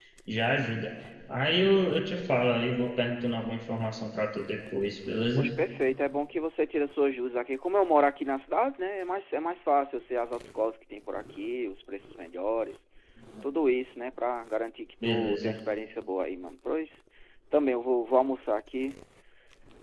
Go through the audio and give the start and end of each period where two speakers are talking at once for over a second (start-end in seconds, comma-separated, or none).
none